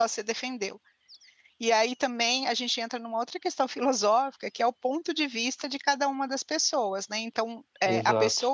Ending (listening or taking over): listening